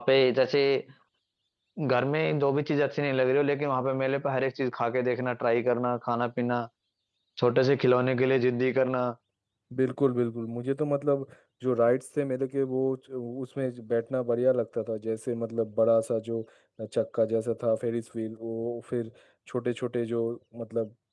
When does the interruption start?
none

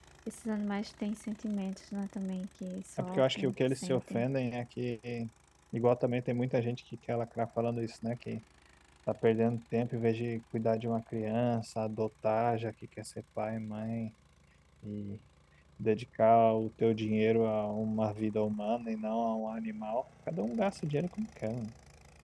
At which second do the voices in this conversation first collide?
3 s

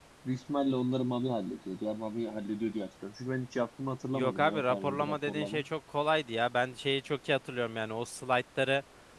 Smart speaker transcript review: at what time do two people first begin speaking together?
4 s

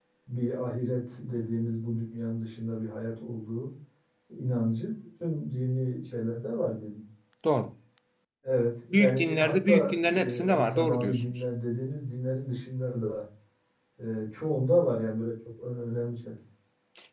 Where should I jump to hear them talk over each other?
9 s

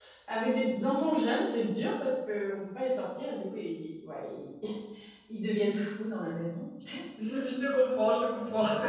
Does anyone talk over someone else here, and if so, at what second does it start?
none

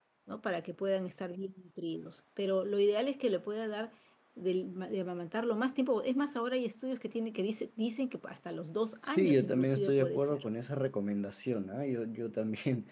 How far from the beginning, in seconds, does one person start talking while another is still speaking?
9 s

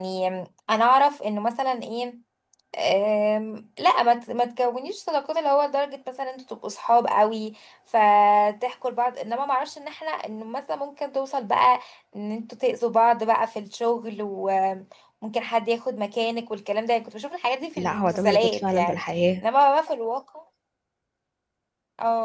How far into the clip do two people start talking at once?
18 s

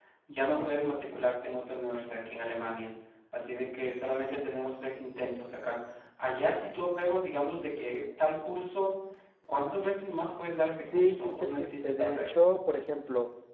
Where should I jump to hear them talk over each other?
11 s

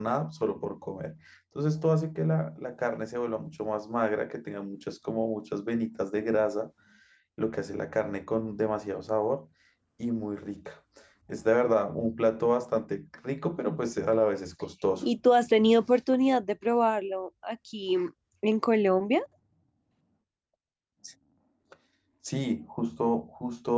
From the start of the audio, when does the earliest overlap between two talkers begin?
none

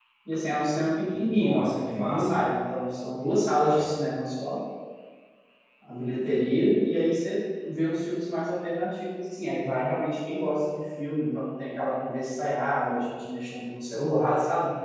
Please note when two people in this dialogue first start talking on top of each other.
1 s

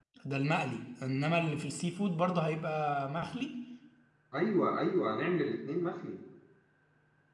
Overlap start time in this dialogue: none

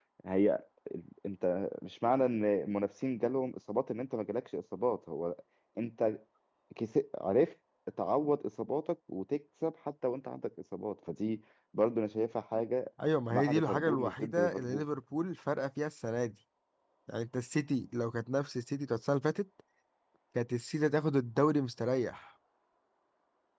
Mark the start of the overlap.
13 s

